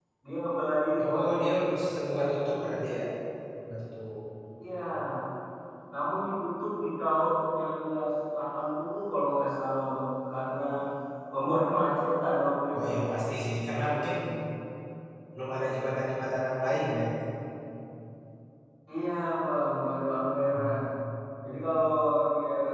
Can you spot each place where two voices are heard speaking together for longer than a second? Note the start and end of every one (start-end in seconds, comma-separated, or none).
none